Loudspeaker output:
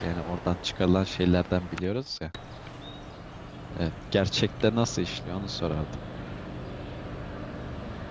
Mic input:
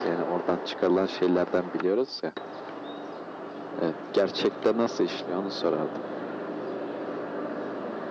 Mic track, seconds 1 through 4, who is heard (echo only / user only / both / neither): echo only